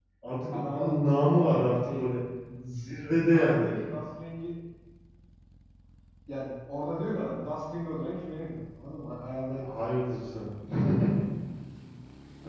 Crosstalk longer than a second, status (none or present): present